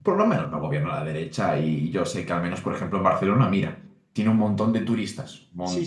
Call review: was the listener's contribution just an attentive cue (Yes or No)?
No